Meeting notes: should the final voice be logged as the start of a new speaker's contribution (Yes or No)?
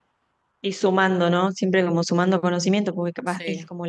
No